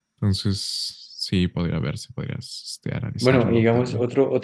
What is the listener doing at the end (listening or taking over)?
taking over